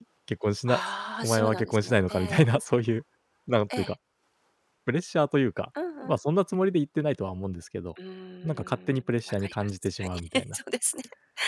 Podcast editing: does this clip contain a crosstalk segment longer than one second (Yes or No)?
Yes